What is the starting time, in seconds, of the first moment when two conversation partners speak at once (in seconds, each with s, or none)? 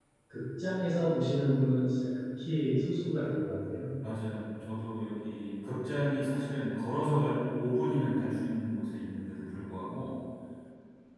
none